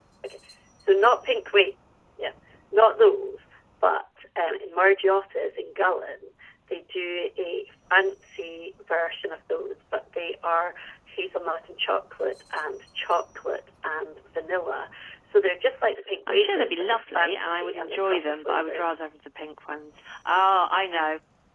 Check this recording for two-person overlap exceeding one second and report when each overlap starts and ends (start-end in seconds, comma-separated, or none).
16.3-19.0